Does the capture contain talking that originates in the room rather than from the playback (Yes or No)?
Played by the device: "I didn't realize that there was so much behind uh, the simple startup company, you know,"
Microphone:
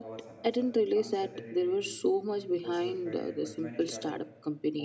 Yes